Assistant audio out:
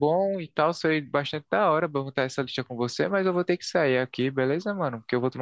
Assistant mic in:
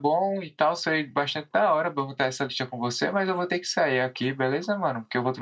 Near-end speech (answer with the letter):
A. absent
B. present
A